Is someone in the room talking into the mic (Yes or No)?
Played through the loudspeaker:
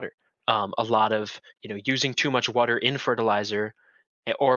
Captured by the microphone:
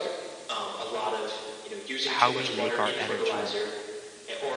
Yes